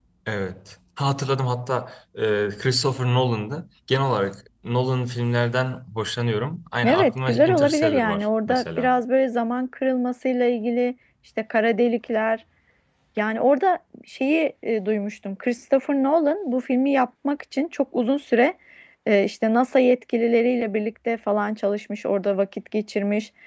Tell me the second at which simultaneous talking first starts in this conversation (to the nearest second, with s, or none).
7 s